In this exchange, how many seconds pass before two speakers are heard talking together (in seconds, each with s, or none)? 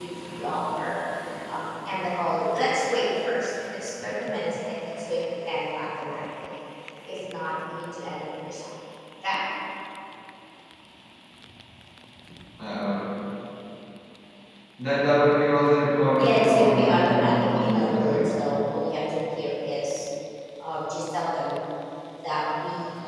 16.2 s